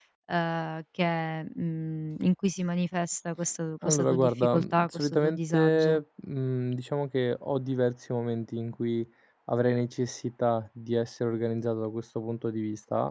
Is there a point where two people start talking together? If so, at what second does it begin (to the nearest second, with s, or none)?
4 s